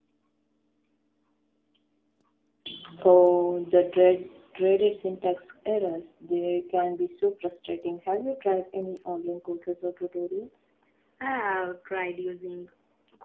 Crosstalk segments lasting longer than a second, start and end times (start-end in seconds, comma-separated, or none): none